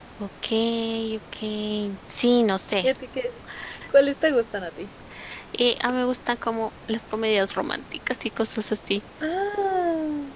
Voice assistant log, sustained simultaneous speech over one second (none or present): none